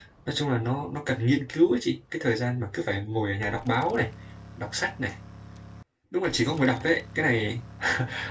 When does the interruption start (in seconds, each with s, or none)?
none